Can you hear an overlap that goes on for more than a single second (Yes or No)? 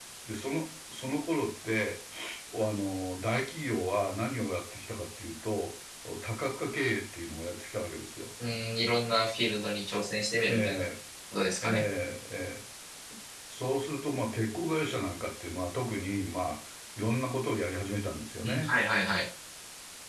No